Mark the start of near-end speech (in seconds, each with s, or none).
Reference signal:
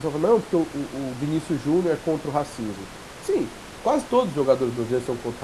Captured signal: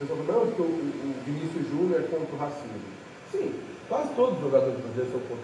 none